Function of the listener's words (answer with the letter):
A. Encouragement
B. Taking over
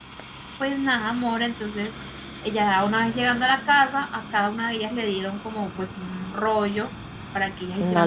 A